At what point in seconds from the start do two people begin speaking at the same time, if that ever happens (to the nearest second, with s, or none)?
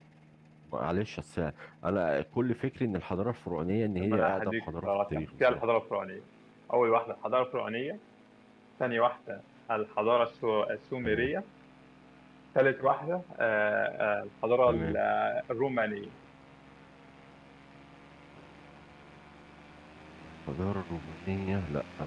4 s